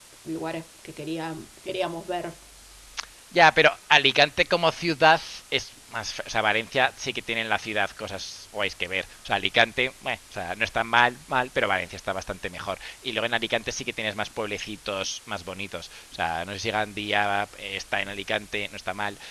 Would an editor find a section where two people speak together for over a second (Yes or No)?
No